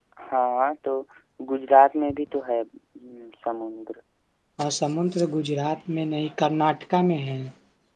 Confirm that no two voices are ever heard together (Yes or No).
Yes